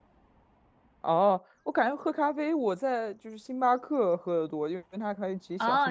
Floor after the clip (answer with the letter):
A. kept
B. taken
B